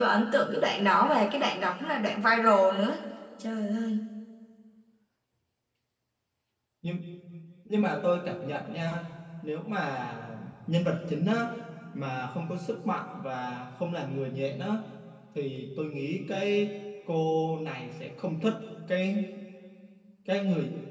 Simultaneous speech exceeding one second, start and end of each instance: none

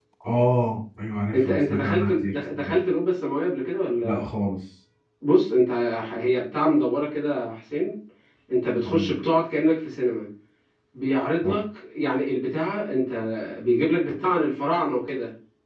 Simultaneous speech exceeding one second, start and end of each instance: 1.3-2.8

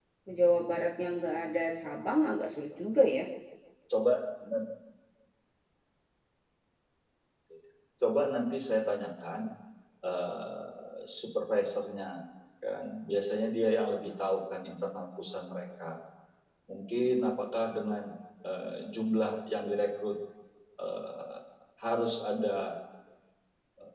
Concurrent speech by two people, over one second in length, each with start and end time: none

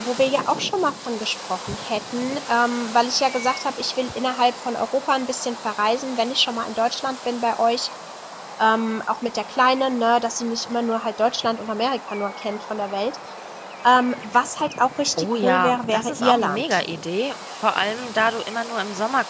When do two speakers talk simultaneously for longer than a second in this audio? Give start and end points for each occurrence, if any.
15.2-16.8

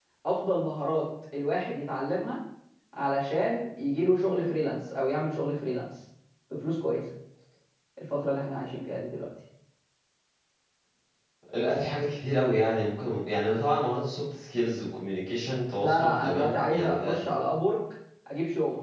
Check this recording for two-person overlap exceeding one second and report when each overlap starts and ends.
15.8-17.2

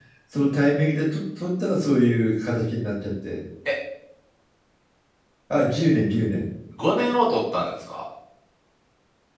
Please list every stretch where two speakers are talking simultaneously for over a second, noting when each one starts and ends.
none

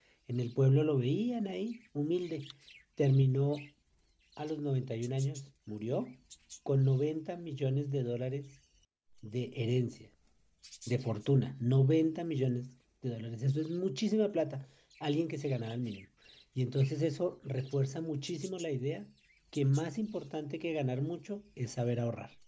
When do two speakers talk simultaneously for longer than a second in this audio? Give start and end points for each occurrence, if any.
none

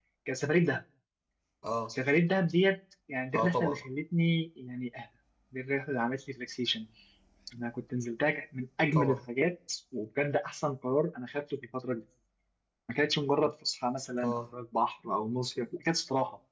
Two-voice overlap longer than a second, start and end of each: none

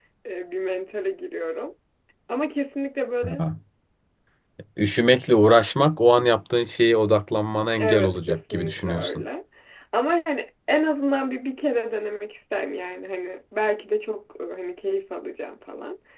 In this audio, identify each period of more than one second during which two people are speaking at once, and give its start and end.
7.8-9.2

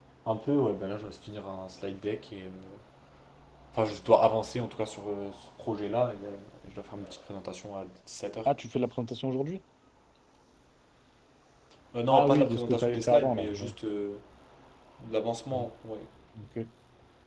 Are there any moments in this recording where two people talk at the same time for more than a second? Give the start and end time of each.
12.1-13.7

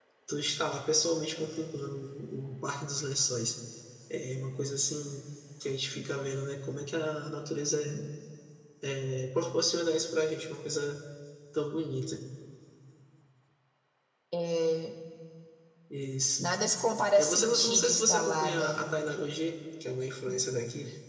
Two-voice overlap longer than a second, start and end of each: 17.2-18.8

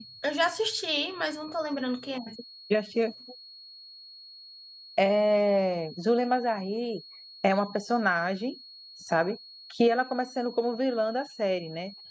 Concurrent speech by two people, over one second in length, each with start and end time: none

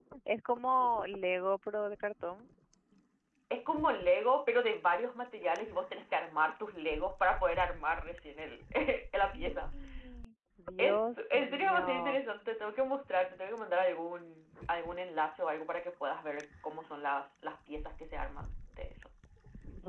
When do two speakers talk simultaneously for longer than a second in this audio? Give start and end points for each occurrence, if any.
10.8-12.2

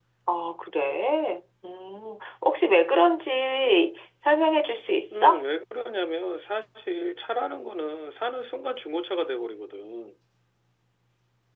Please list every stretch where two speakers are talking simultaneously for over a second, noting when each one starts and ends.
none

